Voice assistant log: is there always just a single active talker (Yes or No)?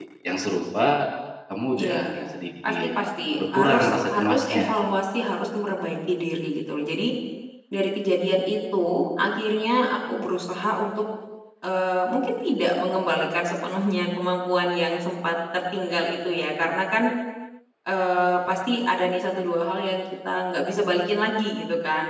No